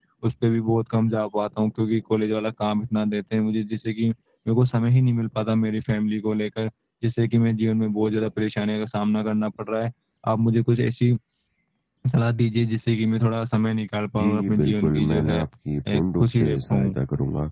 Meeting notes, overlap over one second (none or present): present